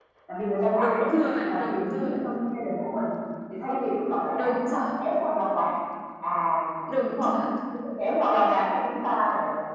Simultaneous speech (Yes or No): Yes